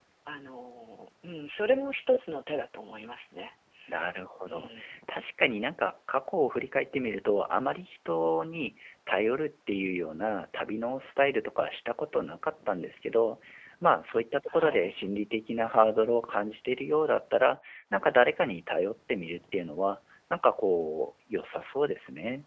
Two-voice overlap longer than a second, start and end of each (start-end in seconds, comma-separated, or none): none